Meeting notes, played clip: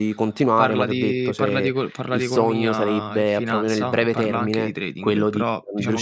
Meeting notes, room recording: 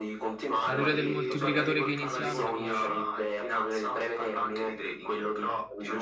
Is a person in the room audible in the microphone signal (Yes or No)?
Yes